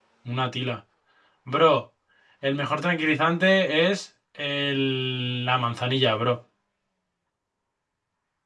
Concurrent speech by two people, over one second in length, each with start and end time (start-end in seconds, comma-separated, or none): none